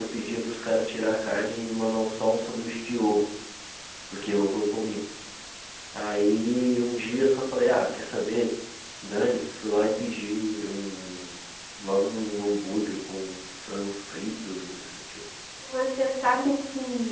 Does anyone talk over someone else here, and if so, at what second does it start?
none

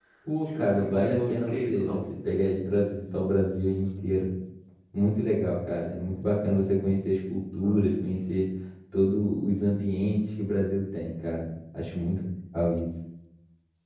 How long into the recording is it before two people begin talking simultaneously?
0.6 s

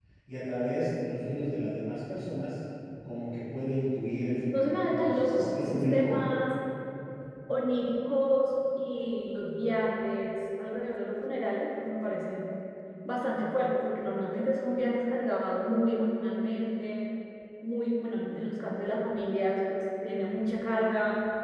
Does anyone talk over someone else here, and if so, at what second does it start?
4.4 s

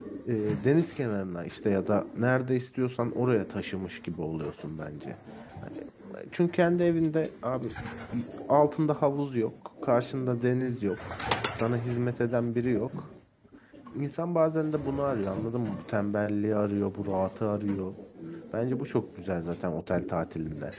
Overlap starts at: none

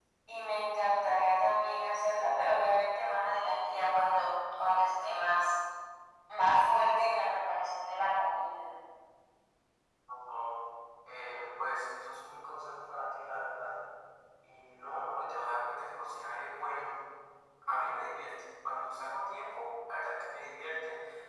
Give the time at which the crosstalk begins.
none

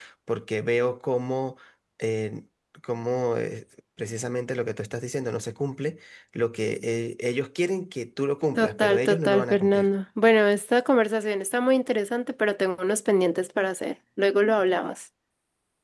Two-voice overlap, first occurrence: 8.6 s

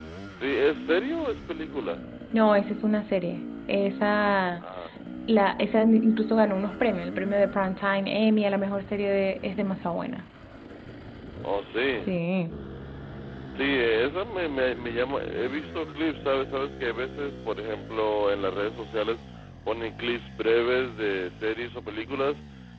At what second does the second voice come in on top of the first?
none

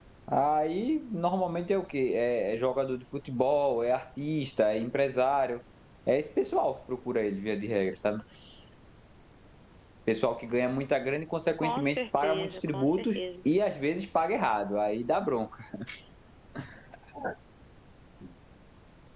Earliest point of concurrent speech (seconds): 11.6 s

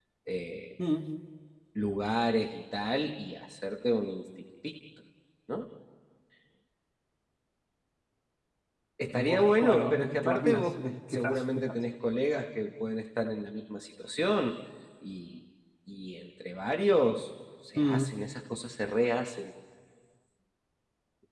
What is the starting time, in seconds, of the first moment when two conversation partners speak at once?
9.2 s

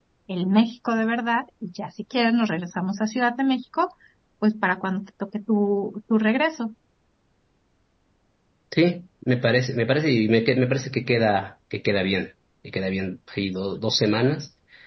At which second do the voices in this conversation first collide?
none

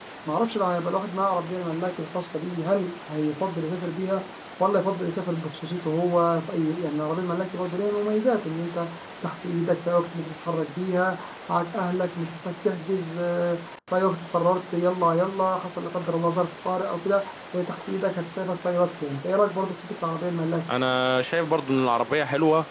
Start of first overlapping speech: none

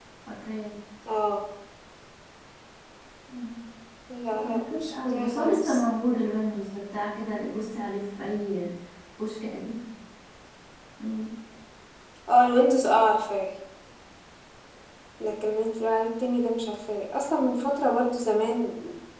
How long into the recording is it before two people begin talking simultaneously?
4.4 s

